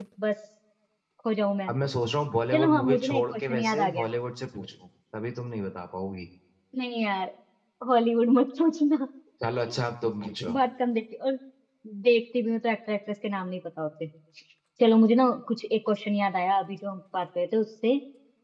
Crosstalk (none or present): present